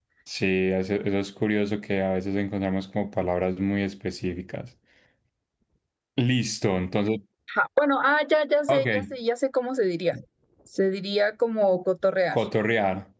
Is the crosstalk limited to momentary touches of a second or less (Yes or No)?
Yes